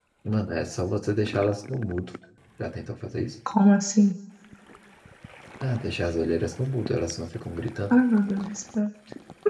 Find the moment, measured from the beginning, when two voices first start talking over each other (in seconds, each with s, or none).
none